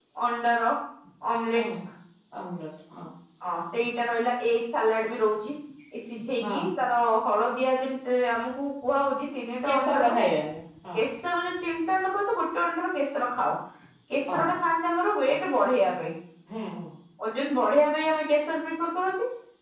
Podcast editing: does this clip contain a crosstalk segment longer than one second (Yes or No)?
No